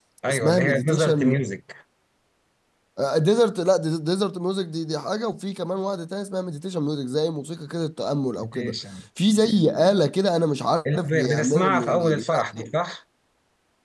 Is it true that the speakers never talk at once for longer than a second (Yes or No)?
No